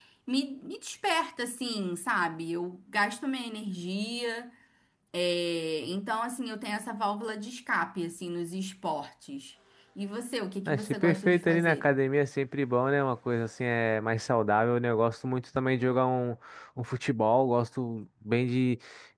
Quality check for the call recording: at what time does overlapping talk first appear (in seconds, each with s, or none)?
10.7 s